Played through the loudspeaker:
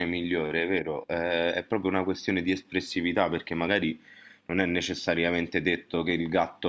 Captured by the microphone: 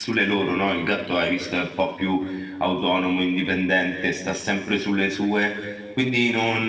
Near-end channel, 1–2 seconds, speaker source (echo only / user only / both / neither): user only